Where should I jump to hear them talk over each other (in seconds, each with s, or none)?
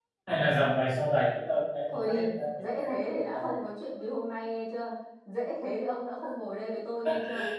1.9 s